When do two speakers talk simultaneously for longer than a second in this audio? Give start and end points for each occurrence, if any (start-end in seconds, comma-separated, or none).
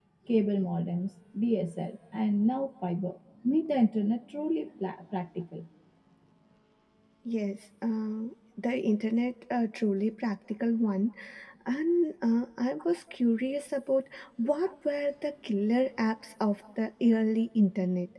none